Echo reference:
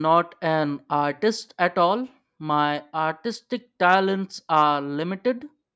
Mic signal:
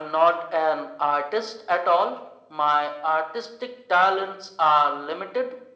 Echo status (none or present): present